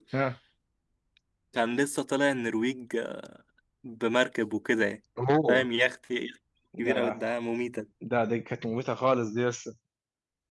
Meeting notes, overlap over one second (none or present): none